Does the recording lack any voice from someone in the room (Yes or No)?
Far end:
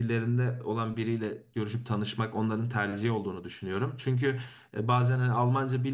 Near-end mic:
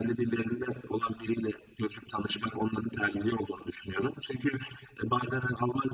Yes